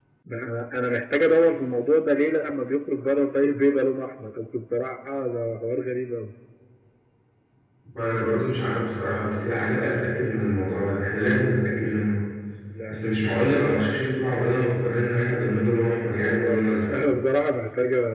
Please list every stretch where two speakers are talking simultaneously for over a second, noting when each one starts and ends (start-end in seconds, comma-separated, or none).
none